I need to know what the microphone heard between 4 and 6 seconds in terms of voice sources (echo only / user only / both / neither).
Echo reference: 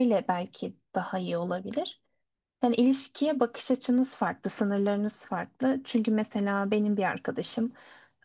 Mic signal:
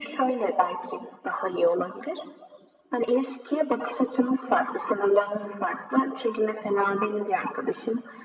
echo only